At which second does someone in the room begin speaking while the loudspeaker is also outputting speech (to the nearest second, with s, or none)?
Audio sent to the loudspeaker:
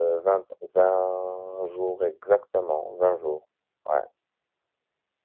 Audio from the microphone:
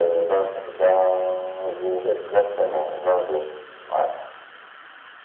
none